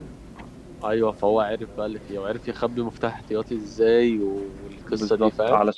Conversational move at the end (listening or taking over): taking over